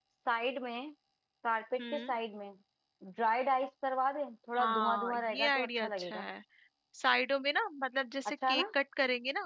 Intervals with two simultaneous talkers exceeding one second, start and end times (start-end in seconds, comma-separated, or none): 4.6-6.2